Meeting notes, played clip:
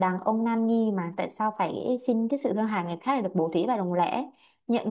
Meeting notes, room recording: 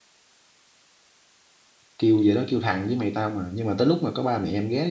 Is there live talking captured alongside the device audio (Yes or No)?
Yes